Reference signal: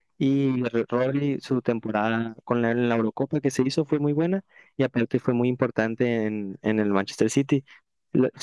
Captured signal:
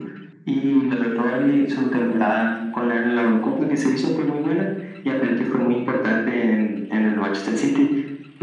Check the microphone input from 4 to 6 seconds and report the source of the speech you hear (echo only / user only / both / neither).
echo only